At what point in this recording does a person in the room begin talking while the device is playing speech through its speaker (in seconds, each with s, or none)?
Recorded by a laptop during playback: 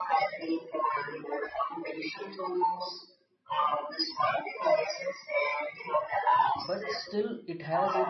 6.5 s